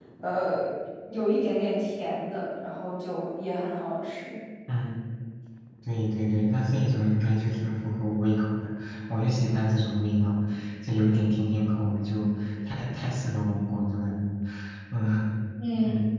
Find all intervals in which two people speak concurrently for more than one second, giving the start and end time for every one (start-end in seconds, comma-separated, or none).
none